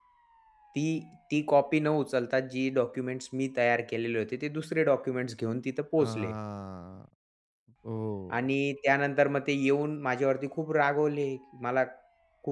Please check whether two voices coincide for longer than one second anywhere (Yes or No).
No